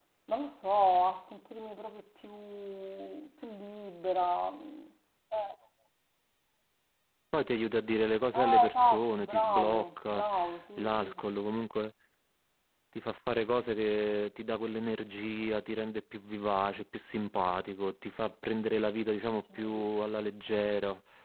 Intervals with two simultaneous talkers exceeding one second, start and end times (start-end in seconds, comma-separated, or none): 8.3-10.2